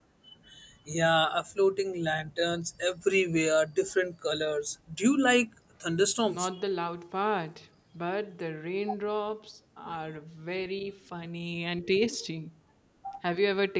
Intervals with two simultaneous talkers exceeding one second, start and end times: none

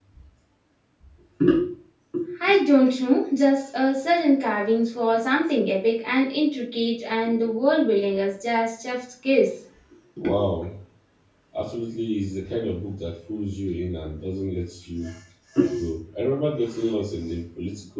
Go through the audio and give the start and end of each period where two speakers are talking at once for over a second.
none

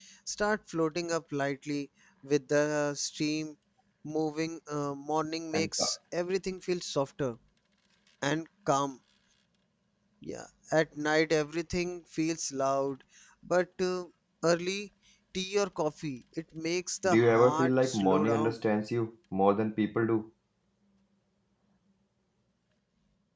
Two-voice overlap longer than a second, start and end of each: 17.1-18.6

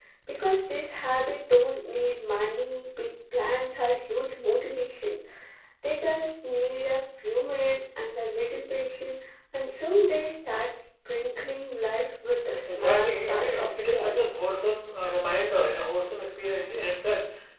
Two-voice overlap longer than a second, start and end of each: 12.8-14.2

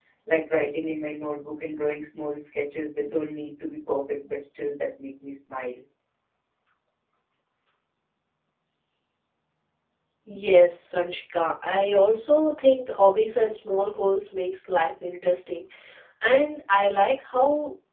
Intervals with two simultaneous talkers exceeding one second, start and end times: none

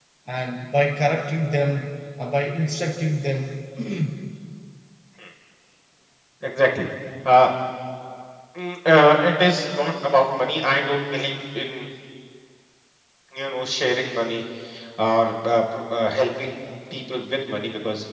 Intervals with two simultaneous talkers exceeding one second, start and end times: none

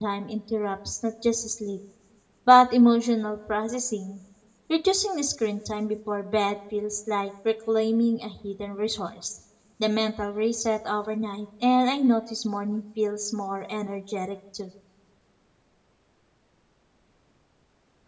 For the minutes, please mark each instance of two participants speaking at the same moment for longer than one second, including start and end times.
none

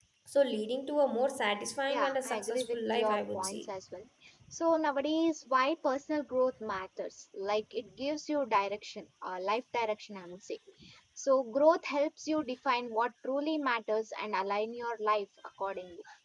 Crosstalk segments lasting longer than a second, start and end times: 1.9-3.6

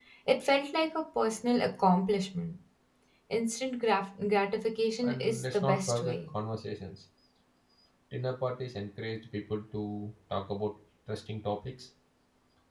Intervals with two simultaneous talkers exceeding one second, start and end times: 5.0-6.3

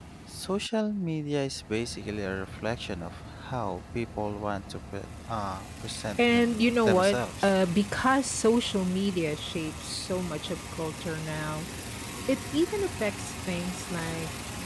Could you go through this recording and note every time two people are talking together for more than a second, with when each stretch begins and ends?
6.2-7.5

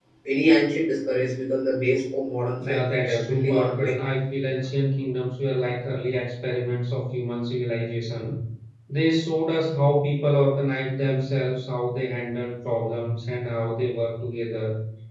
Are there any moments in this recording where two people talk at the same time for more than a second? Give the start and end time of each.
2.7-3.9

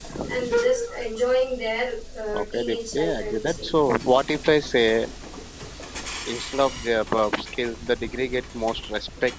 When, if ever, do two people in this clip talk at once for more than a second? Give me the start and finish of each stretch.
2.3-3.7

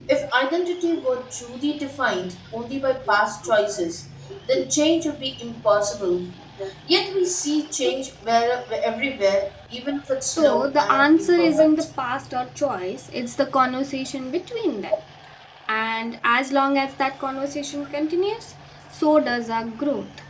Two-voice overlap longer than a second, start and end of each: 10.4-11.7

